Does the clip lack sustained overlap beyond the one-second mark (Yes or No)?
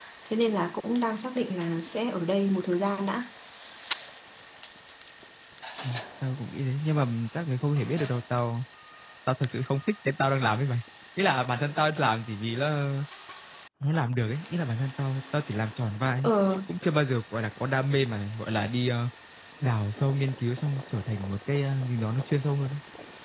Yes